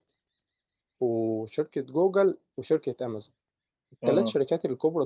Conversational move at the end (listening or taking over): listening